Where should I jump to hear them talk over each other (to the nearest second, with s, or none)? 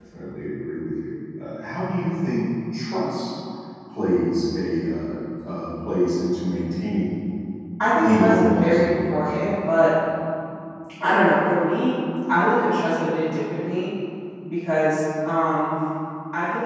8 s